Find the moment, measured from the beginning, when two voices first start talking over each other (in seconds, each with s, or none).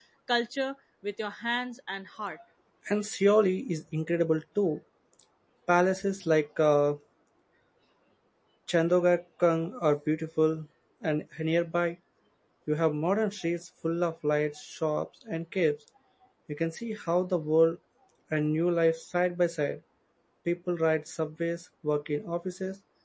none